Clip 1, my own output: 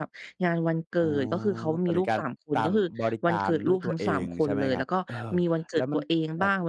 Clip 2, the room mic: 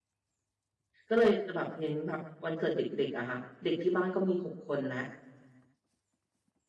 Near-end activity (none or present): present